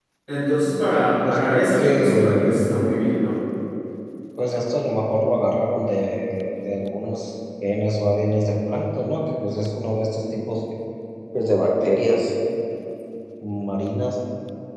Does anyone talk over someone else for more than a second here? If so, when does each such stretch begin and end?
1.2-2.6

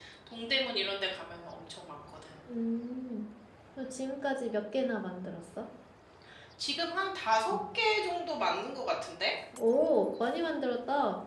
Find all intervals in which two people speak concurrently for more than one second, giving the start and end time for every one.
none

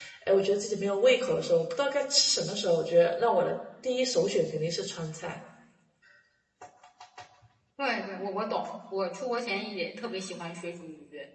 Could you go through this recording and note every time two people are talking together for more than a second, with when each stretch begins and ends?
none

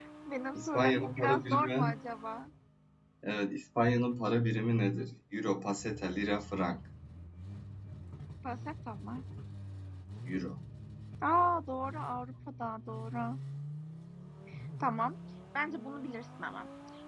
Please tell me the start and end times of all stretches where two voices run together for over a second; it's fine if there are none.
0.5-1.9

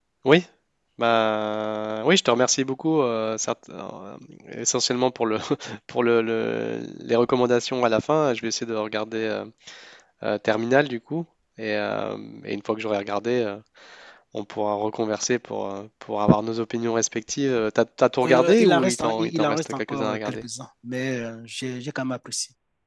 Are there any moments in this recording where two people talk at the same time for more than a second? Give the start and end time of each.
18.2-20.4

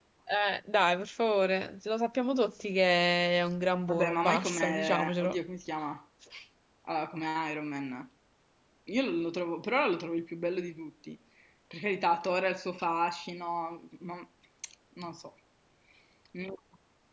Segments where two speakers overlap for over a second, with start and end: 3.9-5.4

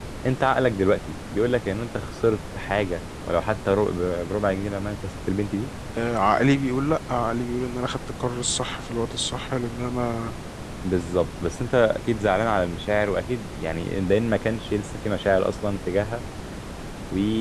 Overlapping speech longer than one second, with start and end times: none

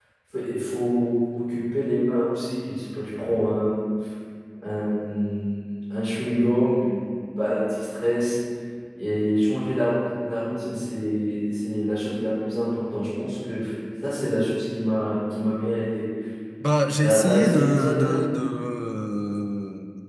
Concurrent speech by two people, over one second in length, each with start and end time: 17.0-18.2

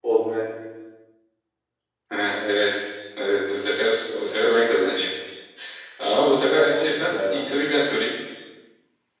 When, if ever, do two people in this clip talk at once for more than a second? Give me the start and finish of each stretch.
6.6-7.8

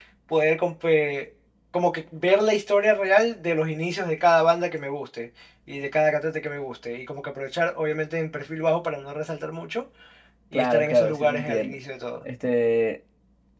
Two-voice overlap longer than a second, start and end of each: 10.5-11.8

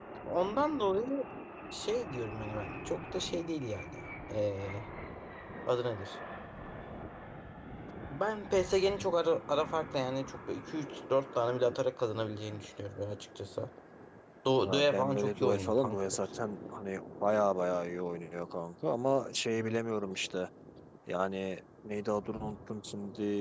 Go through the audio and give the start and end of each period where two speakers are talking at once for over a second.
14.6-16.4

